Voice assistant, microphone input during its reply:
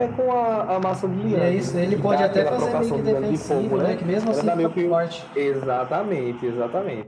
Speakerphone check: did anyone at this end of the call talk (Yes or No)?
Yes